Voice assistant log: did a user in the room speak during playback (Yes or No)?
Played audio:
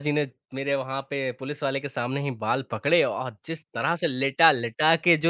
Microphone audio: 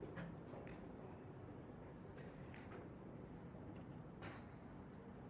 No